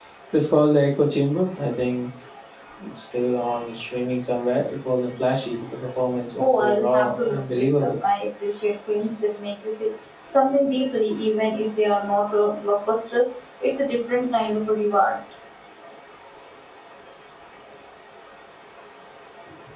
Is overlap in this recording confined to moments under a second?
No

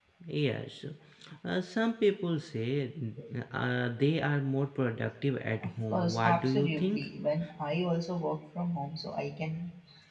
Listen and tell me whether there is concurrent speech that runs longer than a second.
Yes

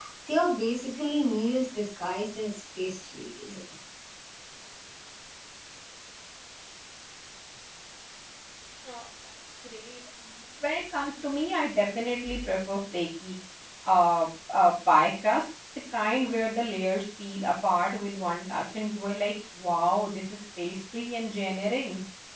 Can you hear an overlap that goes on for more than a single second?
No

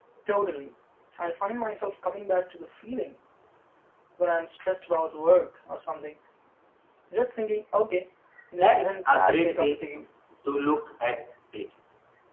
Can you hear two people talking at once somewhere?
Yes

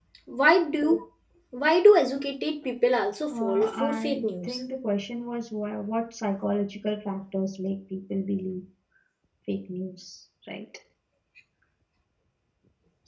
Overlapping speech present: Yes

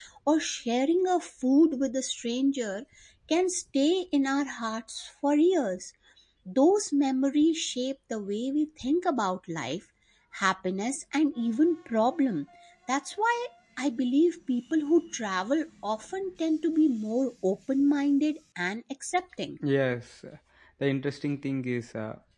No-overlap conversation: Yes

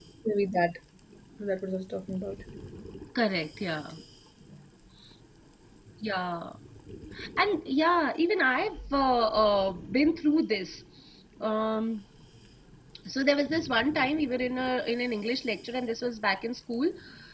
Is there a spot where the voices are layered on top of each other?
No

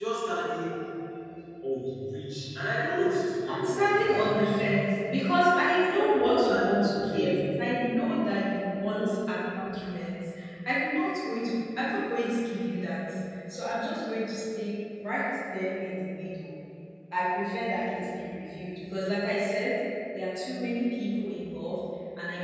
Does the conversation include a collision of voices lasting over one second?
Yes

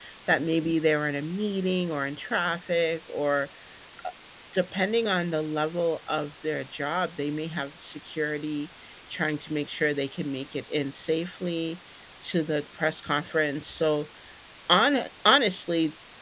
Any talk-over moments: No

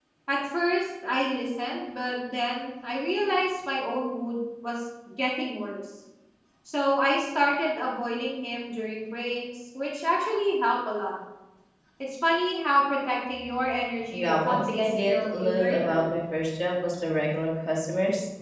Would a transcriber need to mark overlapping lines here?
Yes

